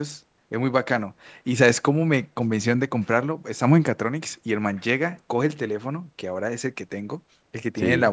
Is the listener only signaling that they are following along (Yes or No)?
Yes